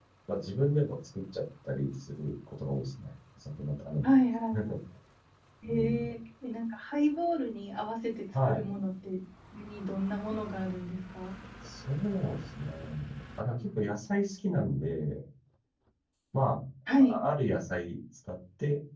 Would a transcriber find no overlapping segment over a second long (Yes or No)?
Yes